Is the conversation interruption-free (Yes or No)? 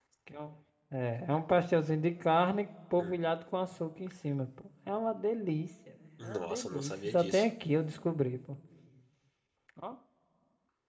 No